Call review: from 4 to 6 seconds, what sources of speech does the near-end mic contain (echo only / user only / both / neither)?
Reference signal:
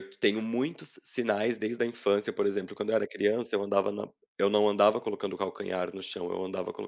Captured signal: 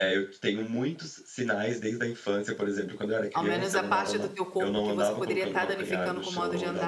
both